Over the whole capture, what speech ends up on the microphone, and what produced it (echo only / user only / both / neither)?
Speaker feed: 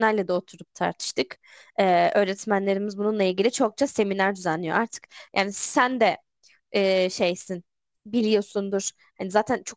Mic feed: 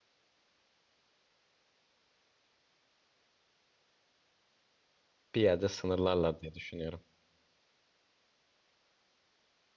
user only